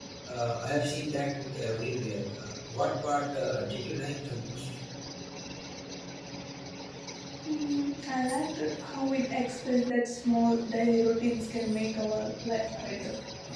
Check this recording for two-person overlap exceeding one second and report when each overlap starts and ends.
none

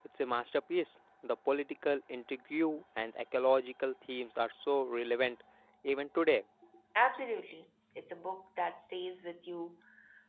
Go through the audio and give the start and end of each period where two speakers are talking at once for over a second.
none

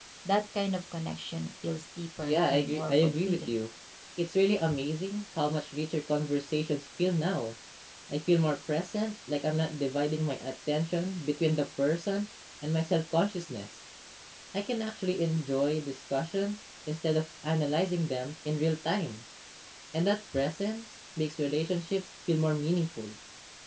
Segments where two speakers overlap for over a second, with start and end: 2.2-3.5

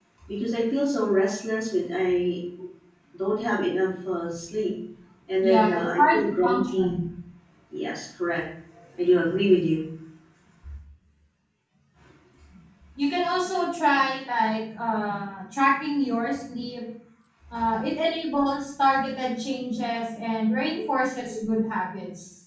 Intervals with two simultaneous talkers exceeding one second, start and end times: 5.4-6.9

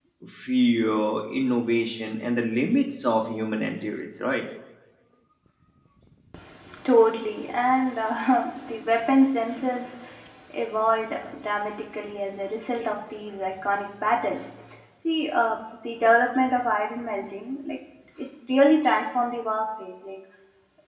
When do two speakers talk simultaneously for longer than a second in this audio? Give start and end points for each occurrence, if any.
none

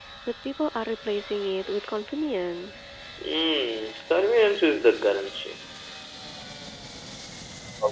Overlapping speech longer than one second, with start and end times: none

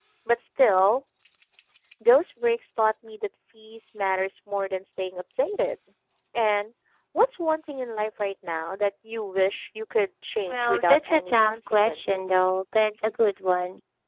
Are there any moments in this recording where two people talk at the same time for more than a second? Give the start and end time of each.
10.5-12.2

